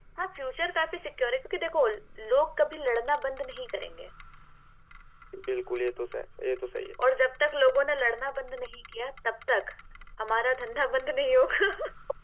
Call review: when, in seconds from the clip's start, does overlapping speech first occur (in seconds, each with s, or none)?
none